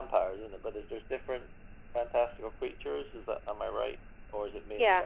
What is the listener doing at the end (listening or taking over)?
taking over